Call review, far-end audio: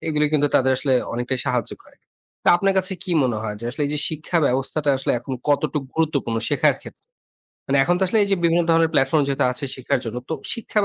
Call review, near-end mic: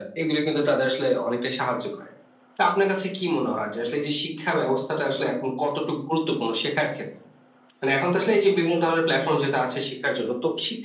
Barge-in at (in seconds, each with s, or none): none